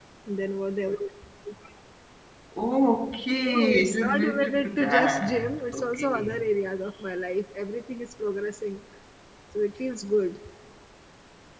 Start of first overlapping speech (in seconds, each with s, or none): 3.5 s